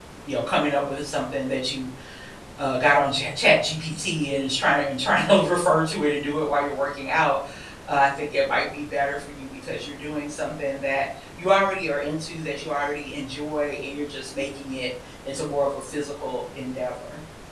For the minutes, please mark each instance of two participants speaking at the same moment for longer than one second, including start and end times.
none

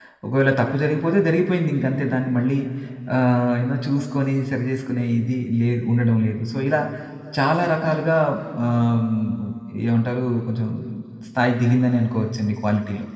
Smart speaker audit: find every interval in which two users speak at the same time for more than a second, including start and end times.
none

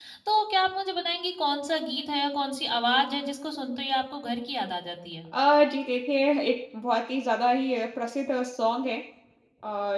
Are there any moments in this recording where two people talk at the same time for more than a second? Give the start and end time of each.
none

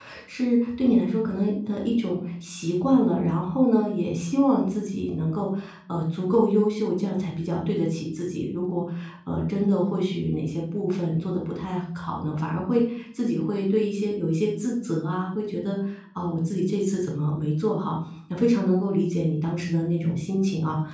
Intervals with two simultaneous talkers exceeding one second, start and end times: none

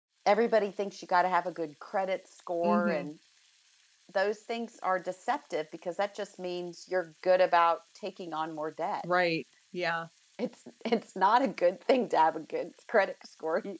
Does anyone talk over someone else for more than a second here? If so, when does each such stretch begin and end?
none

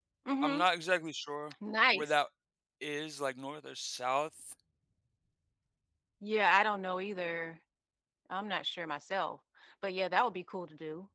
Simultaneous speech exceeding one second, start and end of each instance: none

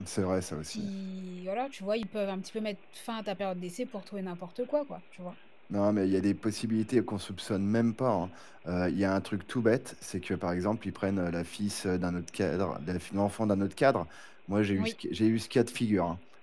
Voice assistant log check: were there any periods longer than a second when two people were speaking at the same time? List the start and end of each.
none

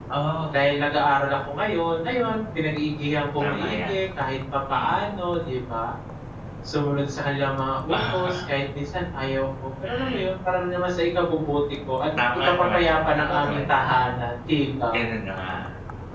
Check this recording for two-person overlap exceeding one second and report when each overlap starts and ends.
12.4-14.0

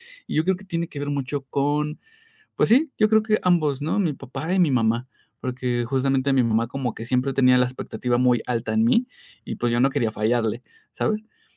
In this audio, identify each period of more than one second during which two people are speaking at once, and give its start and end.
none

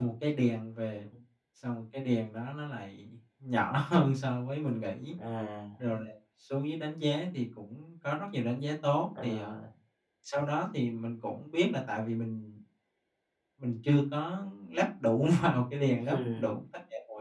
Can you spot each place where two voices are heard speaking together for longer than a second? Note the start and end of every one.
none

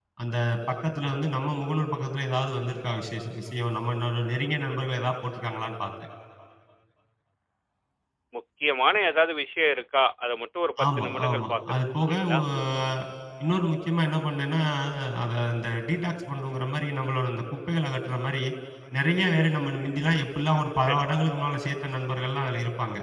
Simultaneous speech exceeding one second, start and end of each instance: 10.8-12.4

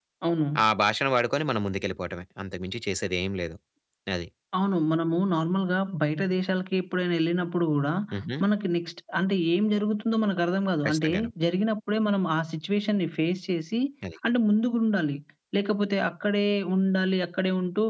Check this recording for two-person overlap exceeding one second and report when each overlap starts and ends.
none

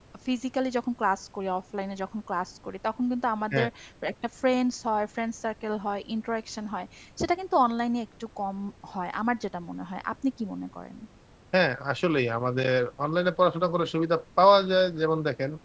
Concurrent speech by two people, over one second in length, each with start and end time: none

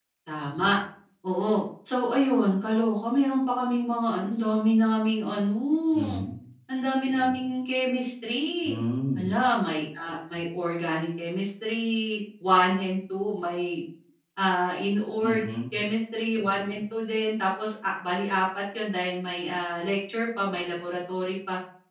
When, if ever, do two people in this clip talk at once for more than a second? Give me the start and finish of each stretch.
none

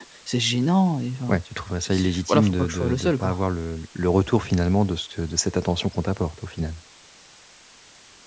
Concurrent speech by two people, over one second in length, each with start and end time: 1.8-3.4

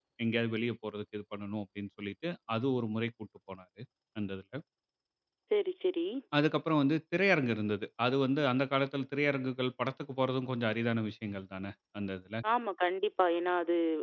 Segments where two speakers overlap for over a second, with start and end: none

